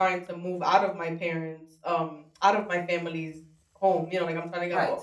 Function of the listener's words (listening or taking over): listening